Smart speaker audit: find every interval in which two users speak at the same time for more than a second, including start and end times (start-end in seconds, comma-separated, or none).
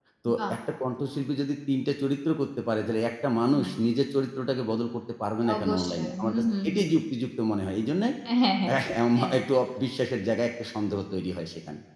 5.6-6.8